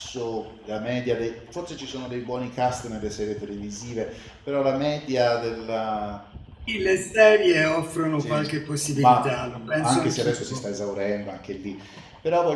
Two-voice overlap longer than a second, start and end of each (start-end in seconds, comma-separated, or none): 8.9-10.6